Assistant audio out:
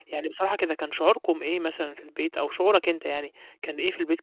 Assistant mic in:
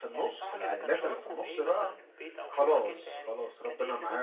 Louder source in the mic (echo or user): user